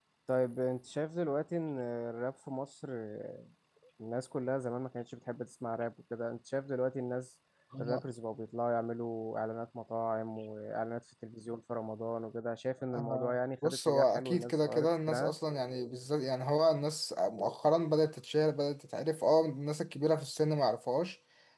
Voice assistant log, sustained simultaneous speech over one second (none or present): present